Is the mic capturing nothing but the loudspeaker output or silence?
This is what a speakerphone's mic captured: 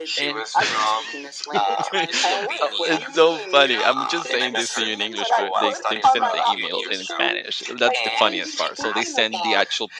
No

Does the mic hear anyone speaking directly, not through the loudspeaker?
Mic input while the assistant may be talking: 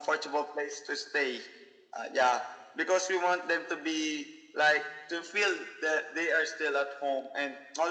No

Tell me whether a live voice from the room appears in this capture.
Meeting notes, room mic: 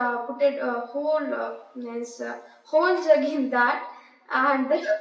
No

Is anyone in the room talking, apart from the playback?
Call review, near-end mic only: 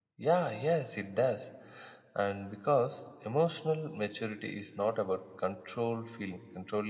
Yes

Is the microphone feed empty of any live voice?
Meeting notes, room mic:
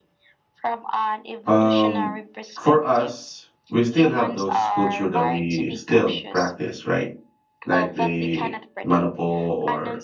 No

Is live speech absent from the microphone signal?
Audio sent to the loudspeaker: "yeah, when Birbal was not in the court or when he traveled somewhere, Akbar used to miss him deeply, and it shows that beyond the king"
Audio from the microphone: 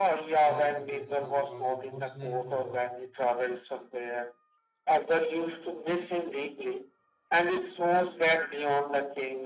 No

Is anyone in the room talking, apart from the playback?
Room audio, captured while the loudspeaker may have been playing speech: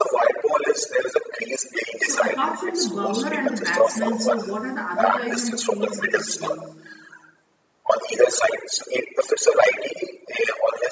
Yes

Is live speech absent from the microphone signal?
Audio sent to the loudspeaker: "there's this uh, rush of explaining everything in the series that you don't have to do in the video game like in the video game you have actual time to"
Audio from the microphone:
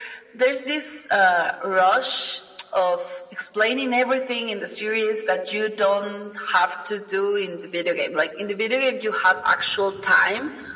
Yes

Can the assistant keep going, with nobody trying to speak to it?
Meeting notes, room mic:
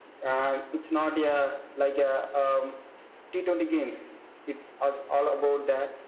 Yes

